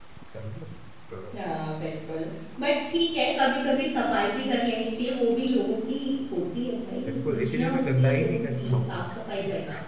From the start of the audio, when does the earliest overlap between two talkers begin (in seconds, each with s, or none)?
7.0 s